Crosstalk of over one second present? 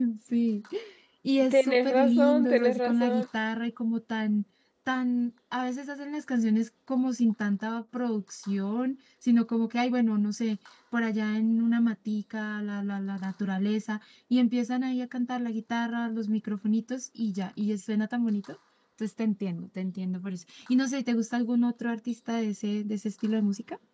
Yes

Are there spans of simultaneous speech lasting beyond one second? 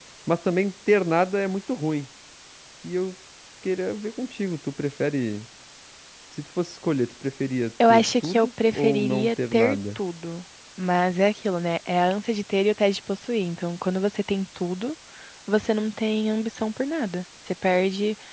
Yes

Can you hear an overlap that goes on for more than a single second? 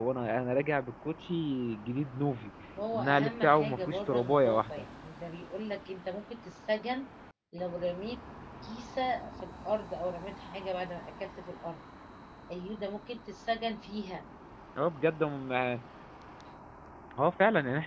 Yes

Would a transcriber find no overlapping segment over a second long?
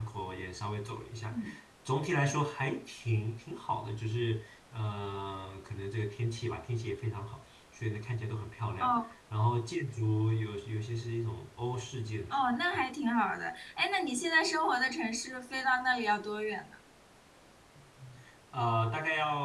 Yes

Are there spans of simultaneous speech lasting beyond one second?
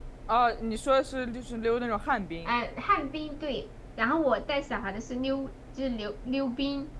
No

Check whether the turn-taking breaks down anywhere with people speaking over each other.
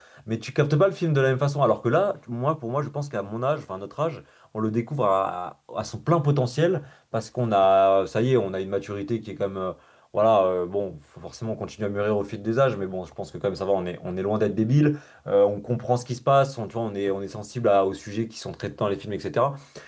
No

